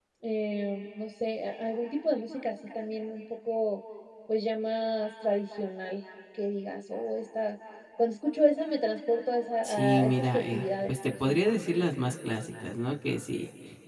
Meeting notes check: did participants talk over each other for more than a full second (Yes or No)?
Yes